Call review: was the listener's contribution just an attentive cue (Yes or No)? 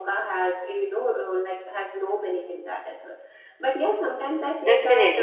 No